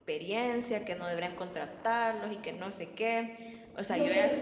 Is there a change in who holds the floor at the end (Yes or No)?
Yes